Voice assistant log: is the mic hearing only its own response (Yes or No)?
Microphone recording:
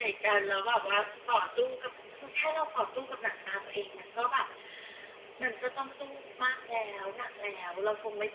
Yes